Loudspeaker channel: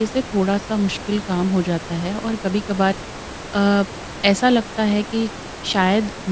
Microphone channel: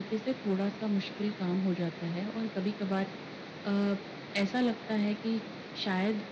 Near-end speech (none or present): none